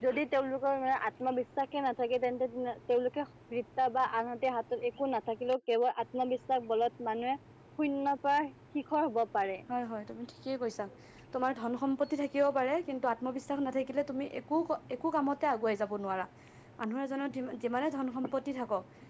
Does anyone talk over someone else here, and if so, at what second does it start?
none

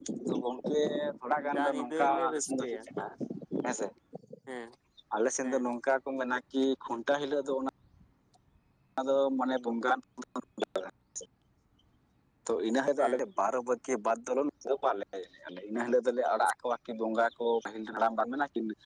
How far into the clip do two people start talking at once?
1 s

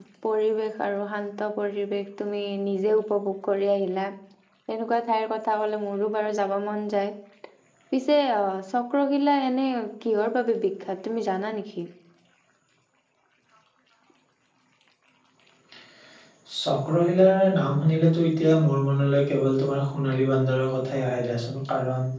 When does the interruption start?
none

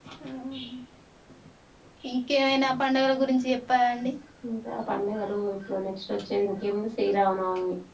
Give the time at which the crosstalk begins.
none

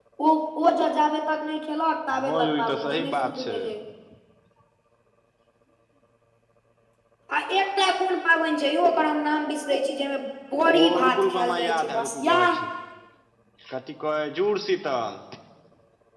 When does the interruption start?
2 s

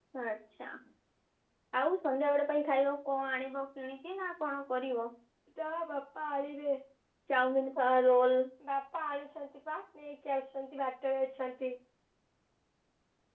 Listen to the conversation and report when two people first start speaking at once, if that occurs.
none

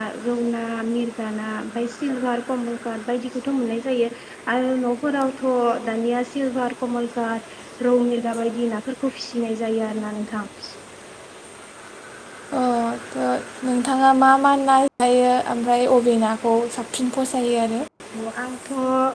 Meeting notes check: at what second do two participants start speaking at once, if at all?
none

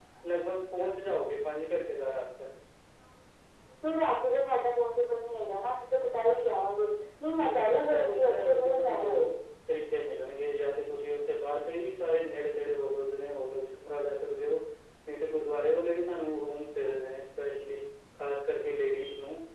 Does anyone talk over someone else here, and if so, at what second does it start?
7 s

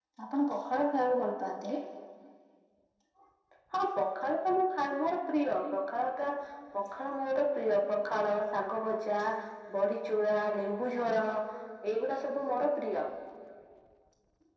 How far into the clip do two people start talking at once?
none

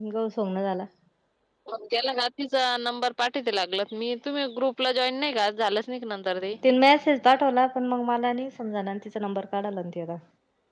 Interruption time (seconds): none

